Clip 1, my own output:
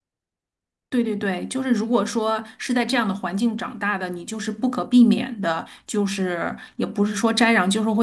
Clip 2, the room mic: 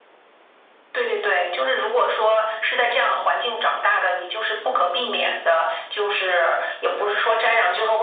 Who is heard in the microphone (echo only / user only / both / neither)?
echo only